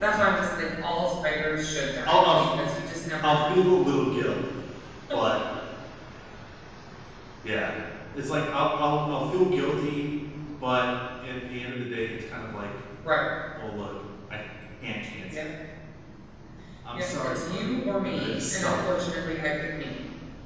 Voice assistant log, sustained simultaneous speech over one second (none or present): present